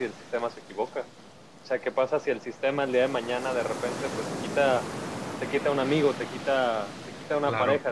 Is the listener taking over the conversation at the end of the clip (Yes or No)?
No